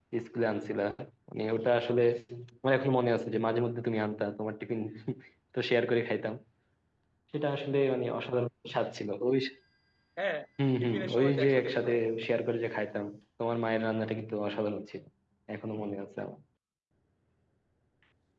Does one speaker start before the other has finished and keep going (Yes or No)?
Yes